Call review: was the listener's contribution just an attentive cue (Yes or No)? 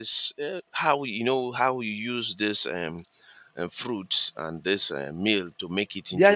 No